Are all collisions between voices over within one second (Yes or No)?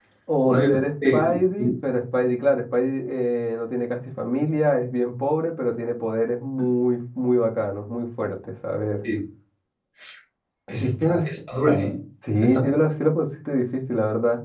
Yes